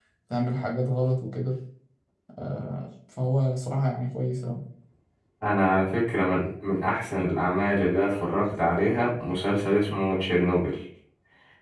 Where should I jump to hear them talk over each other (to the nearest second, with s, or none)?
none